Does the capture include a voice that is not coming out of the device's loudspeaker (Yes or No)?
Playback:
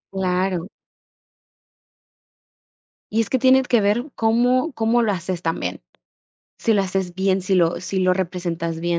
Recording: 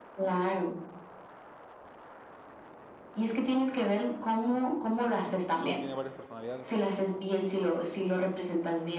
Yes